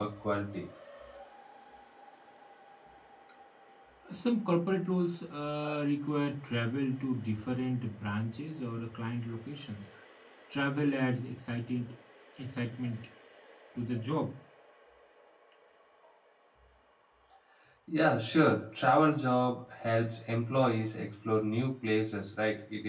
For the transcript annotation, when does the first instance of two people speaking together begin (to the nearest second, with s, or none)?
none